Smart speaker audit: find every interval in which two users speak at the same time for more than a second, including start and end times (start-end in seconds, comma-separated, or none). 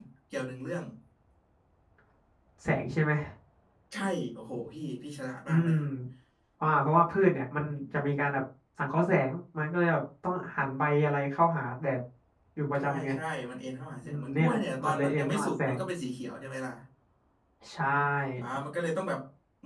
14.0-15.8